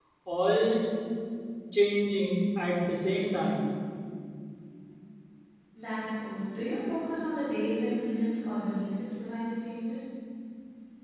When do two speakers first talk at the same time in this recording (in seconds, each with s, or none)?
none